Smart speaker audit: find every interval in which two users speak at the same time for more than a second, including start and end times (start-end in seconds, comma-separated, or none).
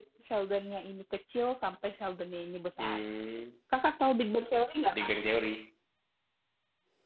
none